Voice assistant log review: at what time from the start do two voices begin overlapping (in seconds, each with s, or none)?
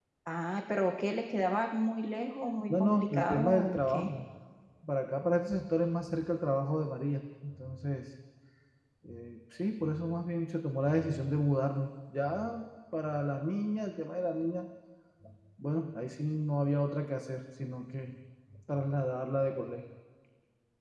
2.7 s